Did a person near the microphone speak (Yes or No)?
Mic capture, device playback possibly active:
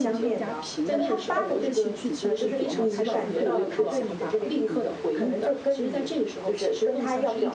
Yes